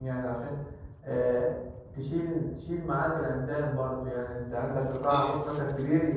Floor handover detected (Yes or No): No